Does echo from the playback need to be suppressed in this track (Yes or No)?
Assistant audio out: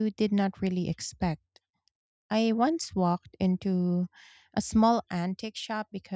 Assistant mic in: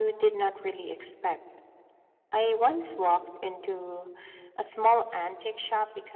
Yes